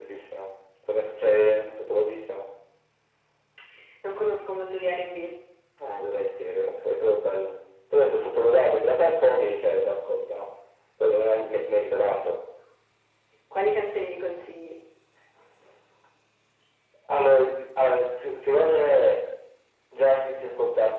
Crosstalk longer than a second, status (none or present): none